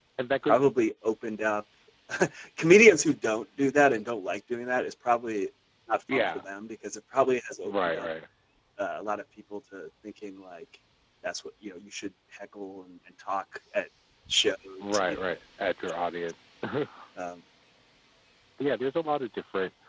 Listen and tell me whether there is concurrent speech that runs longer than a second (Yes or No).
No